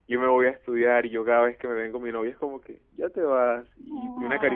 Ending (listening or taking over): listening